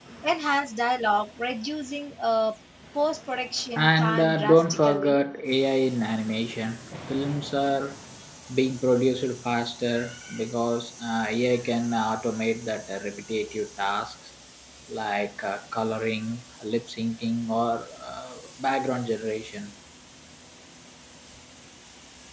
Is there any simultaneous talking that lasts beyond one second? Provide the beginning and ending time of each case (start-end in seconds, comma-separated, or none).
3.8-5.2